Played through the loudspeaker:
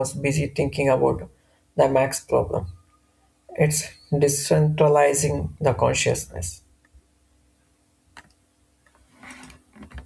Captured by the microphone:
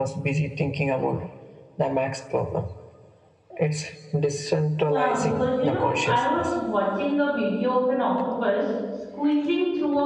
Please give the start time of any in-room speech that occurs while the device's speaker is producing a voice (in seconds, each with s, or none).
4.9 s